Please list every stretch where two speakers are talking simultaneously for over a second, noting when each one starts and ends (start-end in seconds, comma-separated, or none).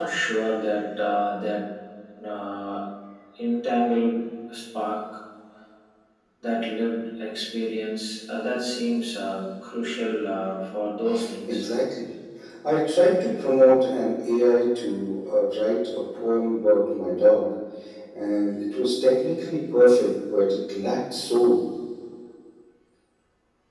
none